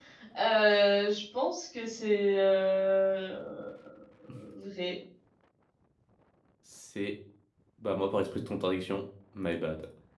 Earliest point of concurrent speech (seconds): none

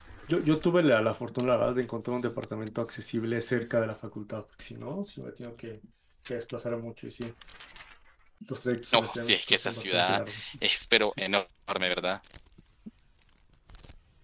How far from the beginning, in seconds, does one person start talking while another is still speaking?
8.9 s

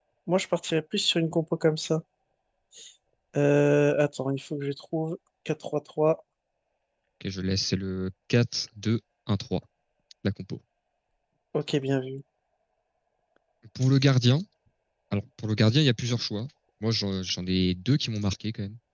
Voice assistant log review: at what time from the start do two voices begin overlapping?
none

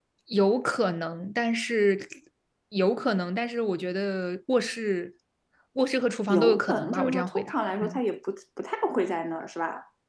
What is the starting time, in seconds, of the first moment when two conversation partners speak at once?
6.3 s

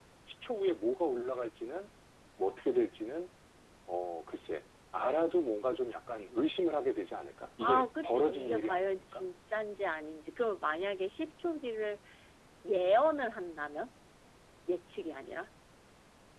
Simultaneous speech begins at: 7.6 s

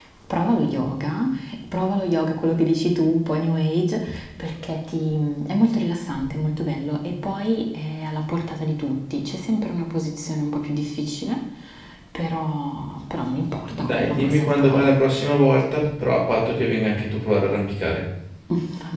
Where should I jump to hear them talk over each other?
13.7 s

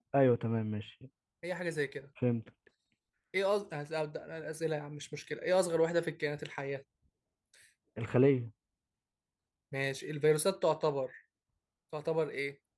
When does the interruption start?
none

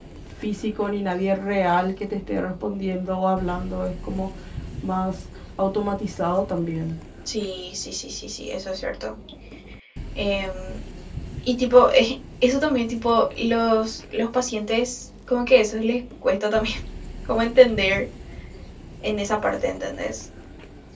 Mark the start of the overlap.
none

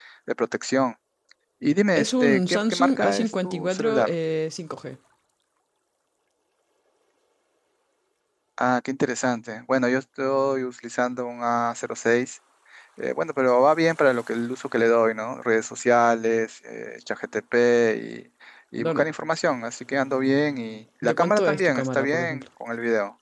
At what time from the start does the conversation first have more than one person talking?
1.9 s

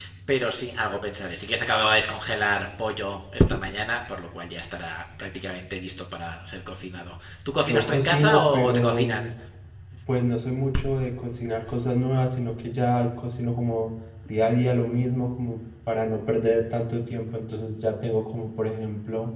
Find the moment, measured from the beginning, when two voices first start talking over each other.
7.6 s

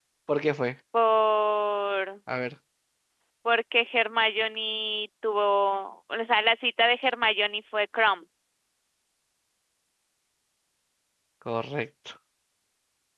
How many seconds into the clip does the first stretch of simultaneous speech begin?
none

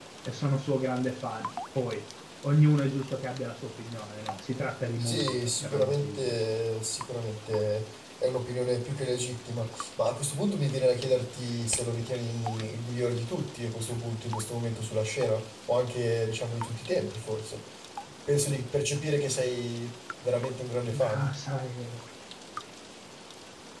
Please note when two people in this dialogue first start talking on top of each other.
5.0 s

